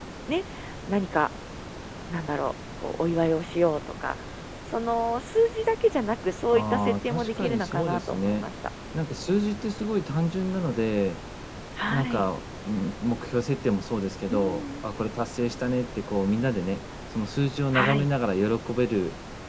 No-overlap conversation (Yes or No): No